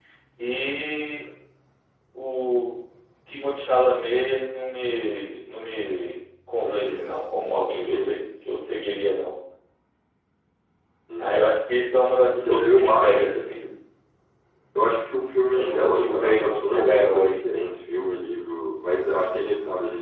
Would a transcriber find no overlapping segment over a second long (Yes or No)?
No